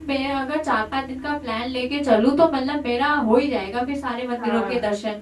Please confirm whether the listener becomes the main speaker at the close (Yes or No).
Yes